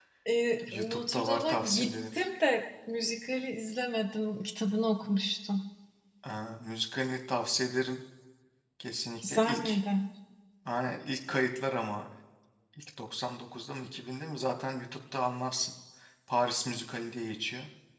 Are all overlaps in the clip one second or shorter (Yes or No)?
No